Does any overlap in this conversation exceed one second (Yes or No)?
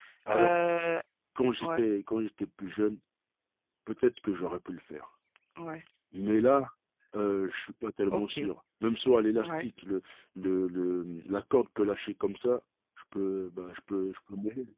No